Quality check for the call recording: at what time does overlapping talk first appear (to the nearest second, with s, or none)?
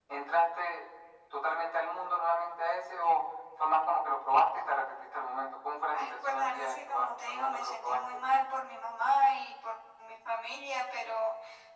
6 s